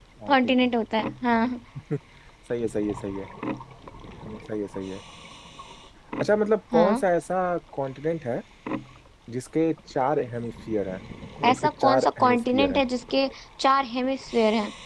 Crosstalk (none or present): present